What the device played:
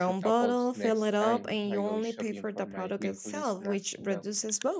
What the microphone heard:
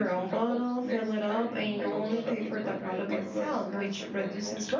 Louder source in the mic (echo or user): echo